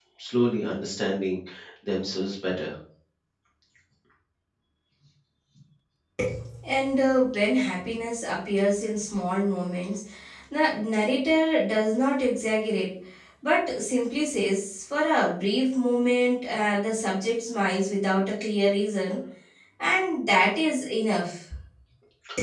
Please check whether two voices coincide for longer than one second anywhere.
No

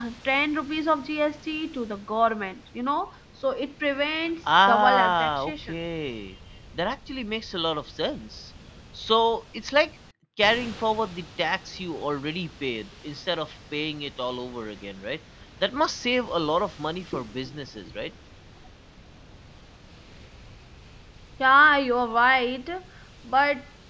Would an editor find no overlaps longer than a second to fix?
No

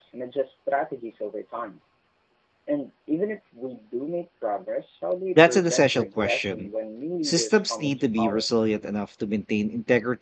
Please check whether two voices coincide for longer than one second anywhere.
Yes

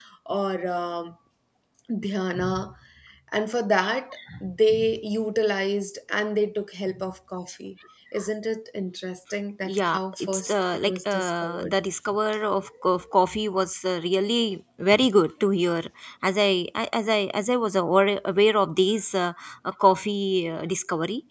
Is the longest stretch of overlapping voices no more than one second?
No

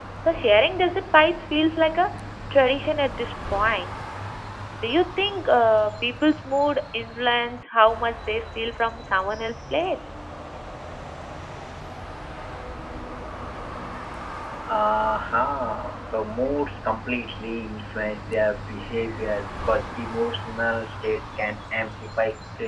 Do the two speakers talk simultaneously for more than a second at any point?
No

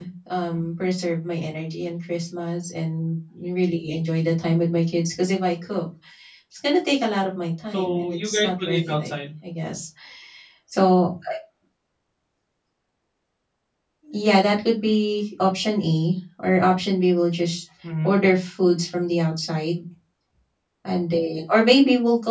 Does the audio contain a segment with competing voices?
Yes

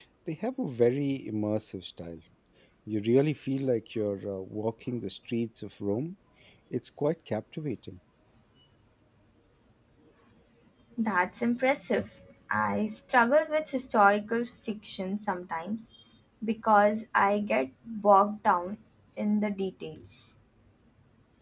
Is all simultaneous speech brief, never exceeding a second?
Yes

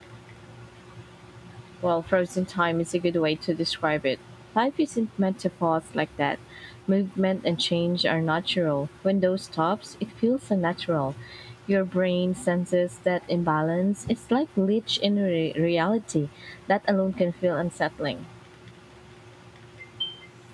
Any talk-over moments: No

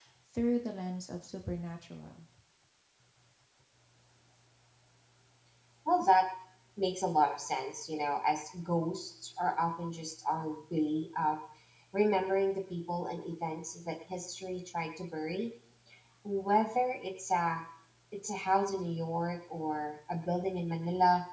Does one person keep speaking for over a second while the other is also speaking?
No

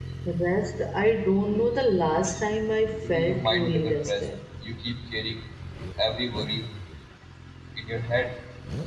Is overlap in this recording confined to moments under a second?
No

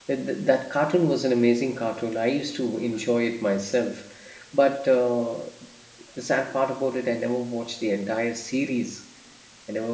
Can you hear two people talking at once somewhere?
No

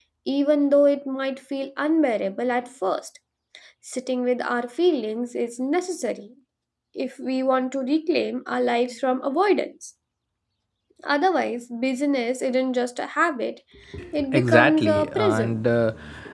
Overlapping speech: Yes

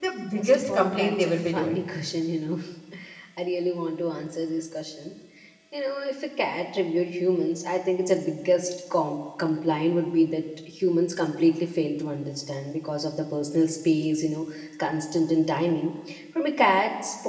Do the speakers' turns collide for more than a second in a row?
Yes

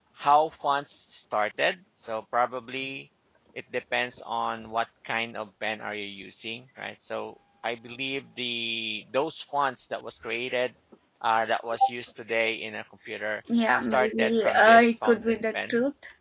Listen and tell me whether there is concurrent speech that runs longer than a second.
Yes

